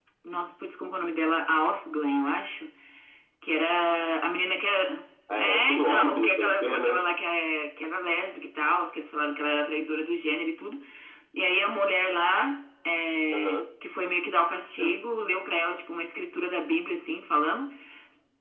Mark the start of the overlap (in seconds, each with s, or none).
5.3 s